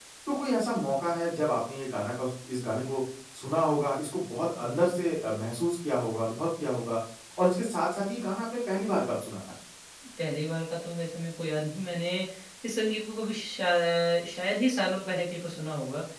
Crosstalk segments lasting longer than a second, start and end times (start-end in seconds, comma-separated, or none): none